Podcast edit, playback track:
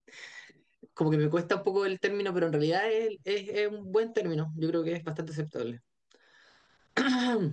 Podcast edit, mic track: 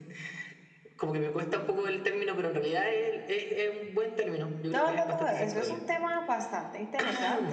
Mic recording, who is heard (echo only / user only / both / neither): both